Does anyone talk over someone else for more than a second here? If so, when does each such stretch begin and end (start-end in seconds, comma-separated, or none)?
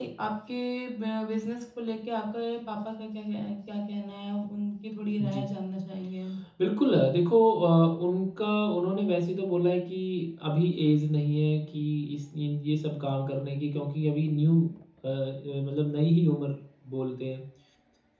none